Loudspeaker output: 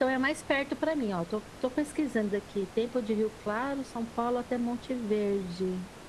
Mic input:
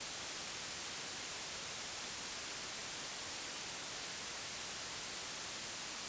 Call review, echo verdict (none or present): none